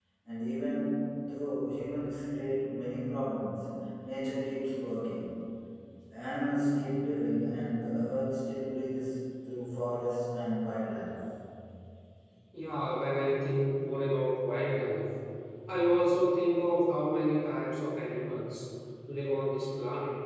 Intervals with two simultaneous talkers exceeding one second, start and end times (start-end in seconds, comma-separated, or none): none